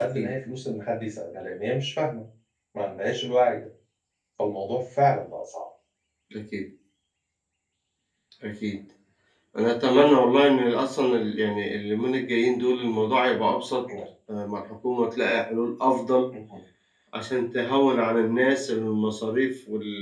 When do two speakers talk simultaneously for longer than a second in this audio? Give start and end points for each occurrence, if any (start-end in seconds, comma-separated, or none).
none